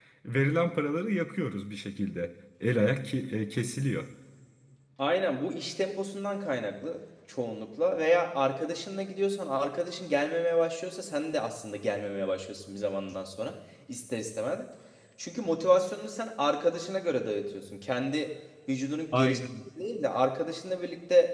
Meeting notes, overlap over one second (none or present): none